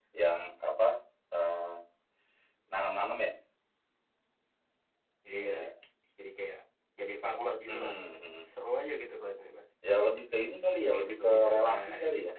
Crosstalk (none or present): present